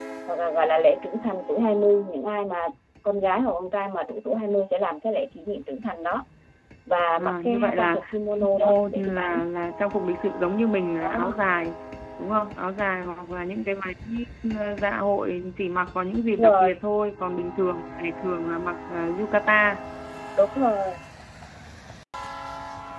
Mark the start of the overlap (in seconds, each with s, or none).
7.2 s